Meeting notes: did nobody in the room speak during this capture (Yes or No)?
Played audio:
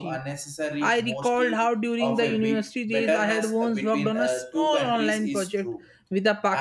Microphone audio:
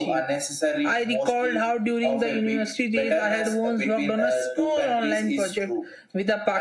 Yes